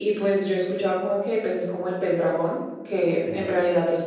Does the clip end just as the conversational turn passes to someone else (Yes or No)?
No